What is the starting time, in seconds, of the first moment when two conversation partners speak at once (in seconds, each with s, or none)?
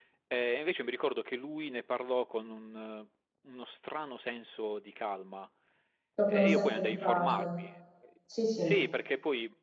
6.3 s